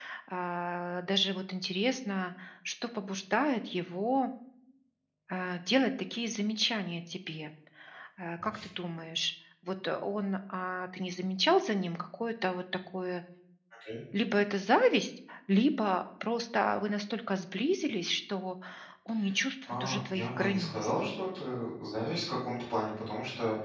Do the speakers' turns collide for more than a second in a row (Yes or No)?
Yes